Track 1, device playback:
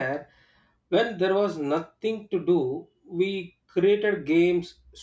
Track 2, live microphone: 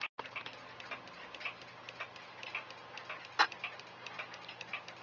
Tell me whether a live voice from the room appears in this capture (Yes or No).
No